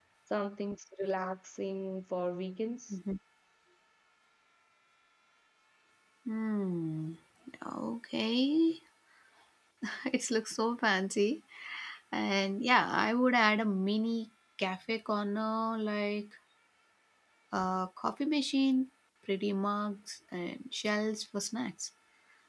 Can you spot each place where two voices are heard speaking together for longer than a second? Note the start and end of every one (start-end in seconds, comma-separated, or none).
none